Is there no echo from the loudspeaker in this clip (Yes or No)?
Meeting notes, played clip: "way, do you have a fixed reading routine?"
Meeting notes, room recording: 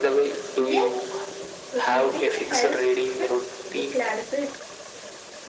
No